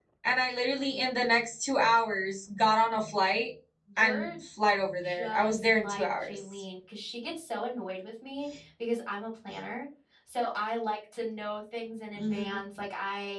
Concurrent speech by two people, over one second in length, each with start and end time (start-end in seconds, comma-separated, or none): 5.0-6.4